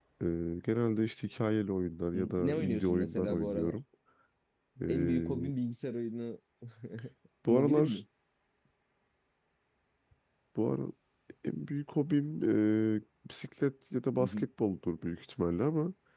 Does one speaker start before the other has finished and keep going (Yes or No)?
Yes